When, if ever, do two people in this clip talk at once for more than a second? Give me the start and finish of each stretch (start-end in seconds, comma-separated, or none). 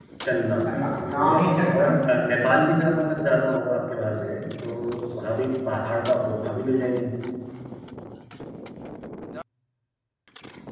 0.7-2.1